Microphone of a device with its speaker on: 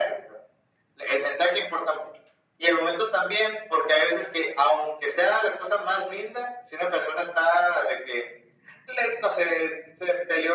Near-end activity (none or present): none